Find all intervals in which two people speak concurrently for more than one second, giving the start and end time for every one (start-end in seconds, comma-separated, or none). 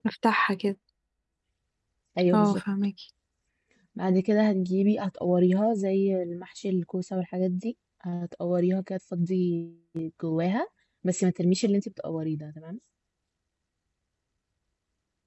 none